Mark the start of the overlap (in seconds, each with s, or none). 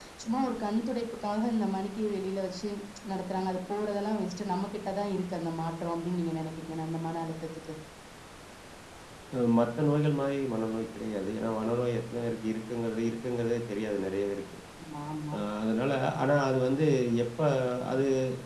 none